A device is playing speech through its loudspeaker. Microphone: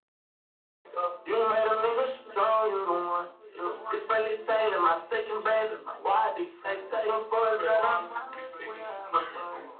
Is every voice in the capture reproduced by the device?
Yes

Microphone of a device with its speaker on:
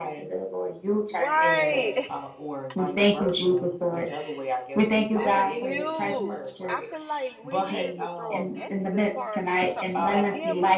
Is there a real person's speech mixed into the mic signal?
Yes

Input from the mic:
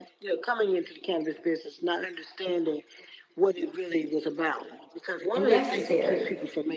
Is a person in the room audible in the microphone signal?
Yes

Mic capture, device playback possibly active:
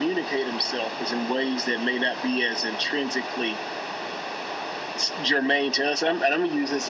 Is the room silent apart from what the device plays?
Yes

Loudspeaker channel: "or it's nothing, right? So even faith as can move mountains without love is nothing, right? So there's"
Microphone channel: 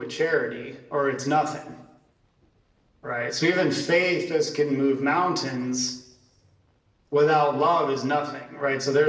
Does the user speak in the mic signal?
No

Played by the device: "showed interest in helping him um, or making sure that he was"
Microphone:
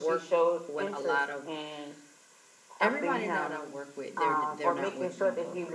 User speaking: Yes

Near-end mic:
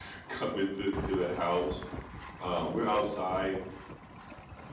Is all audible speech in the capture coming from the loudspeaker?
No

